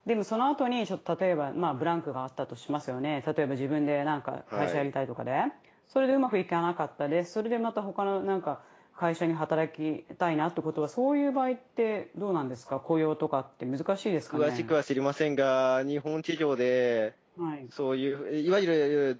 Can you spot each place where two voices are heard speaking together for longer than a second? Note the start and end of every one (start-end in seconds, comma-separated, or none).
none